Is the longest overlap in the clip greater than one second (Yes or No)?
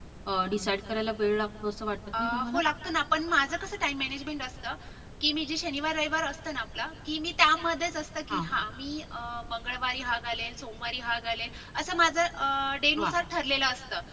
No